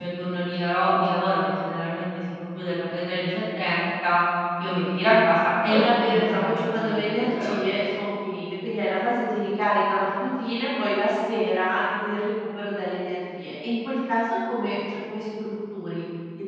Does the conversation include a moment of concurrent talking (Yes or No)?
Yes